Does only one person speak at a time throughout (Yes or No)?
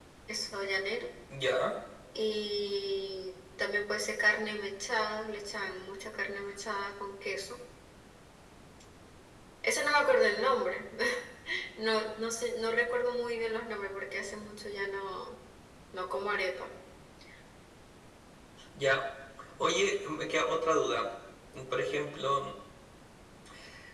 Yes